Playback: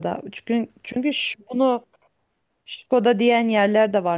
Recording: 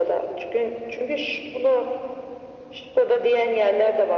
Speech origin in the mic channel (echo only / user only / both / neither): echo only